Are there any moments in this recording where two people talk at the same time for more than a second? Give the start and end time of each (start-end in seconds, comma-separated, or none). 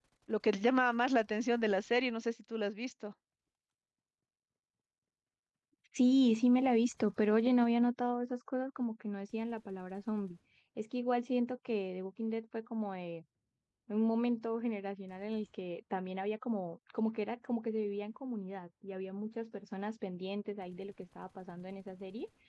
none